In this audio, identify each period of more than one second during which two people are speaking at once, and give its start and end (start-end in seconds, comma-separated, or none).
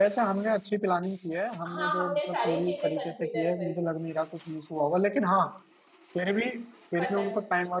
1.8-3.9